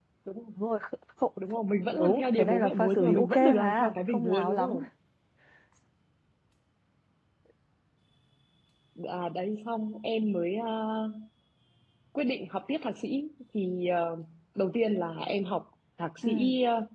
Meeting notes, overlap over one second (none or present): present